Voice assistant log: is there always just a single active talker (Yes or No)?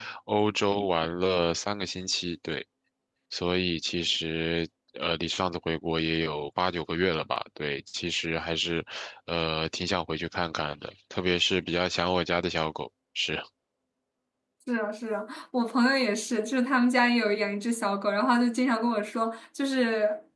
Yes